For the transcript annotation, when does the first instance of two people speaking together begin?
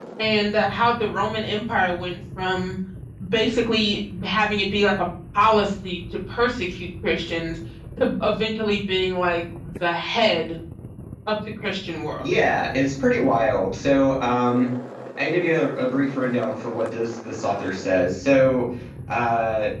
none

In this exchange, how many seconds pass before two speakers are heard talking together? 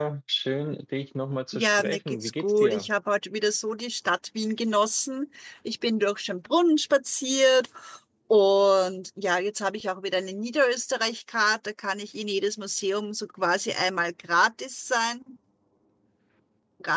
1.5 s

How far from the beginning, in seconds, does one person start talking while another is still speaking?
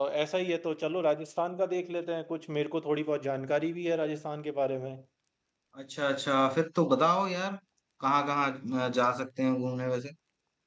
none

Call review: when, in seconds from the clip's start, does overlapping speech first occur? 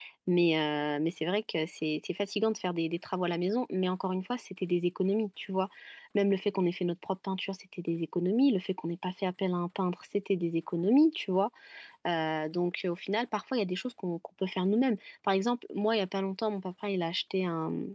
none

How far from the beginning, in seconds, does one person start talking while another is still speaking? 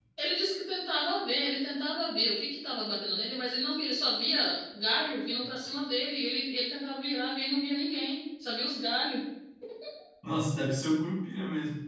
none

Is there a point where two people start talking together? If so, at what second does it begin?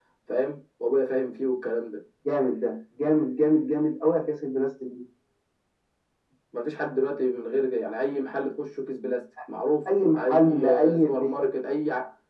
10.1 s

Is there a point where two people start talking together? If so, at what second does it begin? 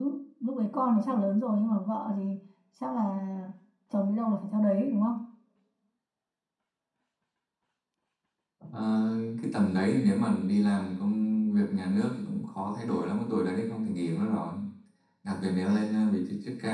none

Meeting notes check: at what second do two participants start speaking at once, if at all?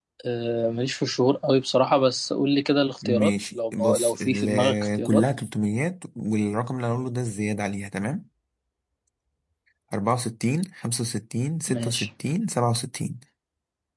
3.0 s

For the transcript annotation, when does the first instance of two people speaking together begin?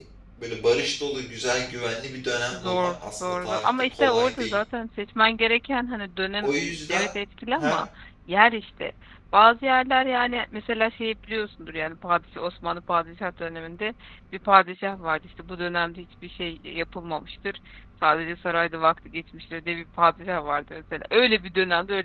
2.5 s

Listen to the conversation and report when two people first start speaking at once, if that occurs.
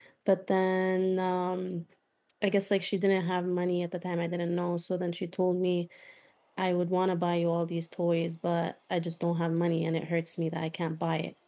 none

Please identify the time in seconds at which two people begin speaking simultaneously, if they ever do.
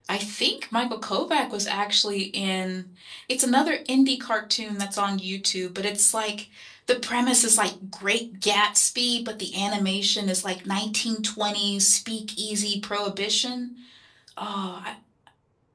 none

